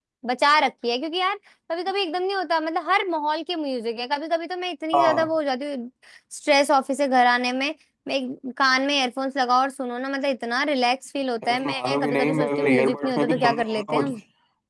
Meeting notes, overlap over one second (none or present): present